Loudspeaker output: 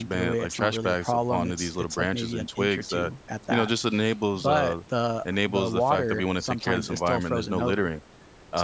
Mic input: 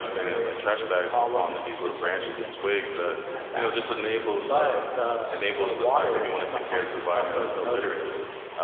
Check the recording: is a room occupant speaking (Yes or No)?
No